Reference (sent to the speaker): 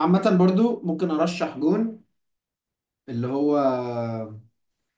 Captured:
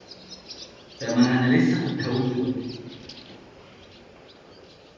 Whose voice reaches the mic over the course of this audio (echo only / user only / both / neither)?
user only